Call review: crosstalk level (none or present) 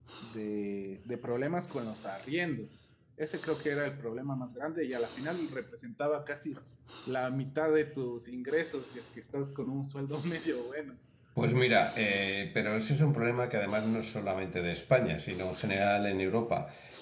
none